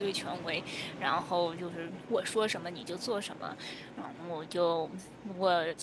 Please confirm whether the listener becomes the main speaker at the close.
No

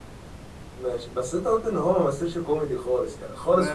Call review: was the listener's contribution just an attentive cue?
No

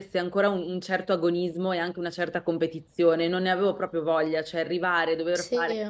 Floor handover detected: No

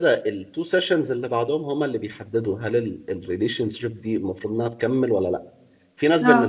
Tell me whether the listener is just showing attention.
Yes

